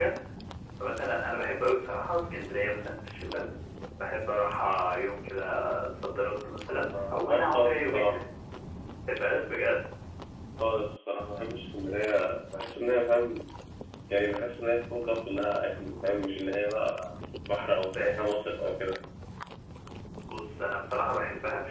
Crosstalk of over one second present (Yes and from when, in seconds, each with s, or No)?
Yes, from 6.9 s